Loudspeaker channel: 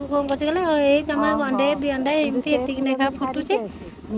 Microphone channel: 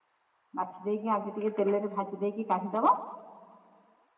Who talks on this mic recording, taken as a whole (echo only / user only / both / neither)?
user only